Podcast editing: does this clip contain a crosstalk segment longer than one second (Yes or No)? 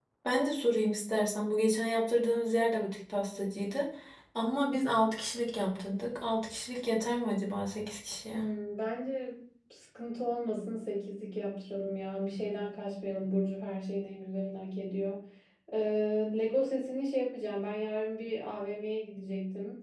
No